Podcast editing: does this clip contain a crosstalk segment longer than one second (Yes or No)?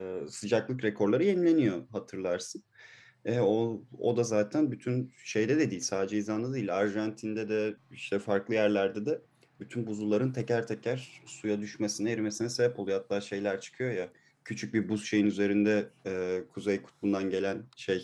No